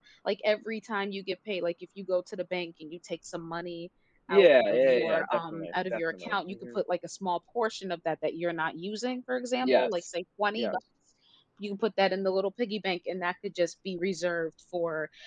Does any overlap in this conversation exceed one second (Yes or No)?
Yes